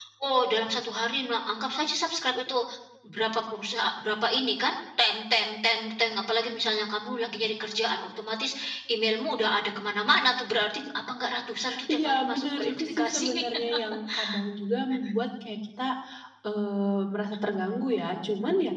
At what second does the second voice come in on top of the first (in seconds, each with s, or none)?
11.9 s